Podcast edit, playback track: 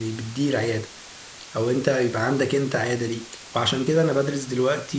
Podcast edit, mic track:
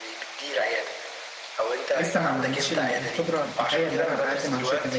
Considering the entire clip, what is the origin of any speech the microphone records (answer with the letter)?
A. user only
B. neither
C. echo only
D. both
D